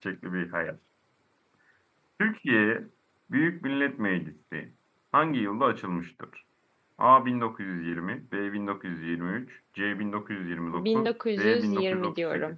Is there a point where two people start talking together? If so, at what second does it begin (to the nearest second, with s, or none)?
11 s